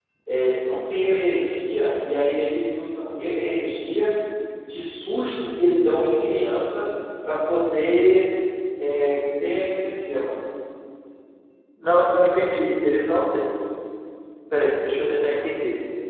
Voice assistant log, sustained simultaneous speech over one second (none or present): none